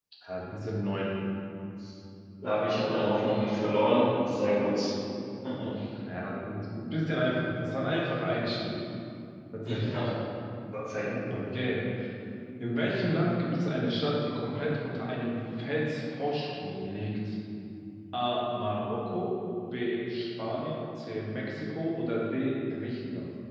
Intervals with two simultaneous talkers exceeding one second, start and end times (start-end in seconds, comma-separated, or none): none